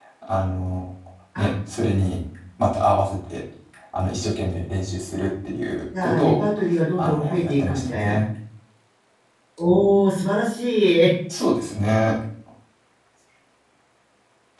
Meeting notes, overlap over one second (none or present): present